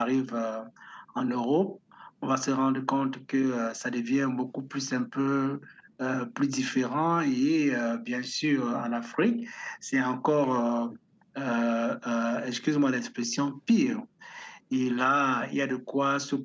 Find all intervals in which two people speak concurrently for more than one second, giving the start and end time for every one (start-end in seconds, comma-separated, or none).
none